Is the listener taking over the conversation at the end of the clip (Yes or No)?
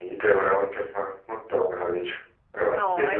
Yes